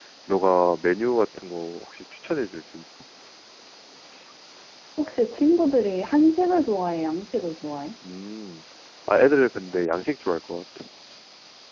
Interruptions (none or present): none